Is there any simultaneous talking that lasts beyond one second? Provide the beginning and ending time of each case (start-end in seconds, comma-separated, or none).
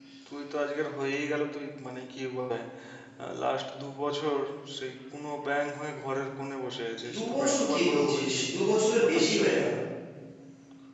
7.1-8.4